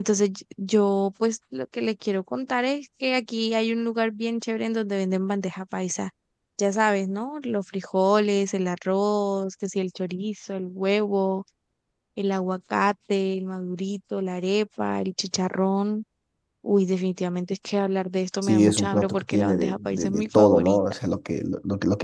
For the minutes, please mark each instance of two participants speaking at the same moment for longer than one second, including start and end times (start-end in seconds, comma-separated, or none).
18.4-20.8